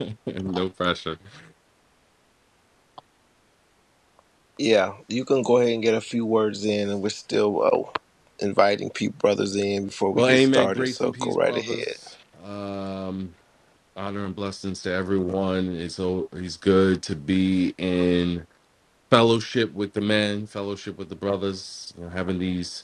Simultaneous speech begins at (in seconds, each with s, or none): 10.2 s